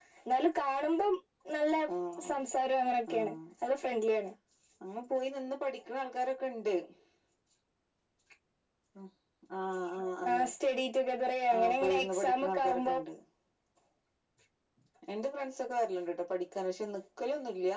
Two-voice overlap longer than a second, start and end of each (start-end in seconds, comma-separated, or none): 11.5-12.9